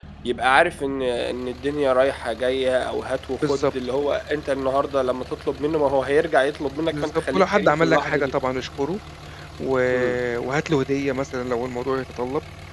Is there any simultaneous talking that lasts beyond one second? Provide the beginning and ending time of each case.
6.9-8.3

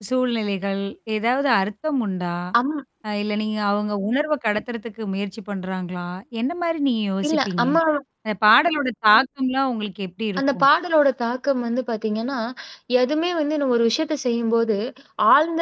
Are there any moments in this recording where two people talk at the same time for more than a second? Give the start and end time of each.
none

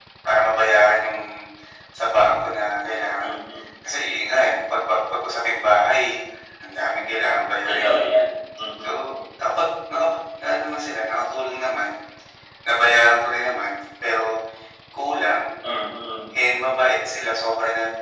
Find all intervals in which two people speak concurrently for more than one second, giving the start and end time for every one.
none

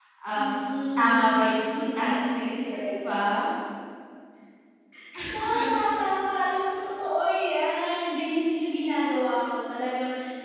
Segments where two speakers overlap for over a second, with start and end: 1.8-3.0

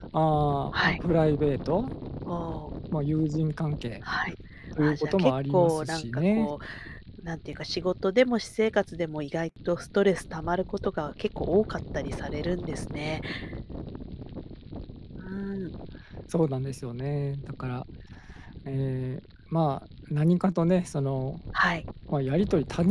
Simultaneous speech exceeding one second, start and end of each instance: 4.8-6.5

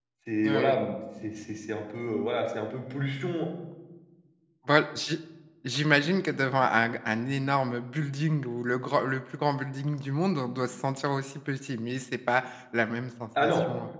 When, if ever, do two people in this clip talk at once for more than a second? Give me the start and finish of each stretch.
none

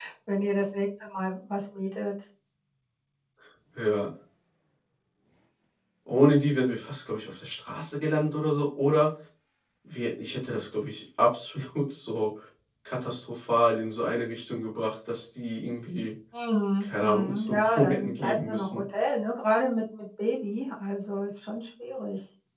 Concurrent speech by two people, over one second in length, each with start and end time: 16.8-18.8

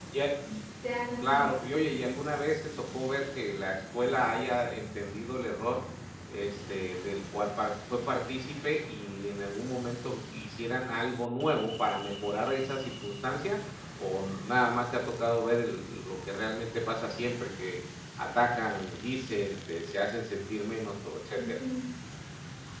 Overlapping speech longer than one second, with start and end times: none

